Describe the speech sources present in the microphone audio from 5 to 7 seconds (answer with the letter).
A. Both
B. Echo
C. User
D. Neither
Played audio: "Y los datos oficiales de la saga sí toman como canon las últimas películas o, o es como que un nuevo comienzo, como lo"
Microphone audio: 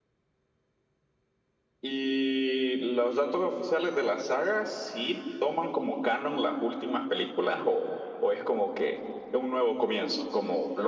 B